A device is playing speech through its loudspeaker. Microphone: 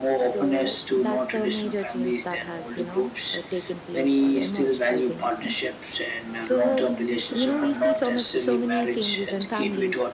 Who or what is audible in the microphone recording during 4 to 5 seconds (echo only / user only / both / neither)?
echo only